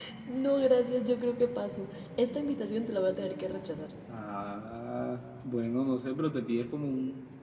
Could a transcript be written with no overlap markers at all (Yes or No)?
Yes